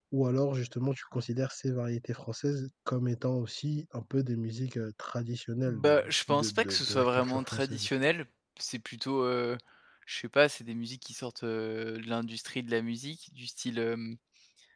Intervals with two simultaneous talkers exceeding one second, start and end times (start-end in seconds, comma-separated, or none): 5.7-7.9